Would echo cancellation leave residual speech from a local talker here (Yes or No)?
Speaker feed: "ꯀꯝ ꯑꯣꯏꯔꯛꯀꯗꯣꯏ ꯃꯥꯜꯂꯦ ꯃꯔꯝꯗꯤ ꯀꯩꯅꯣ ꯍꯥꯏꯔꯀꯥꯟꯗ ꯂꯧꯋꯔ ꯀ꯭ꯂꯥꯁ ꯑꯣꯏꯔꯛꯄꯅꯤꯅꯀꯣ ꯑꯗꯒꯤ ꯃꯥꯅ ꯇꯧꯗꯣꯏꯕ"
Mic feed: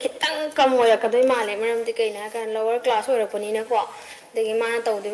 No